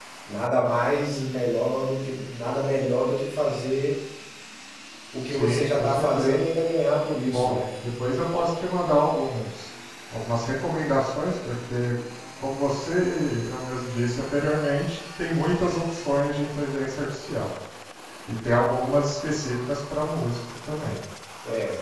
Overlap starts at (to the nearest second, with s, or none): 5 s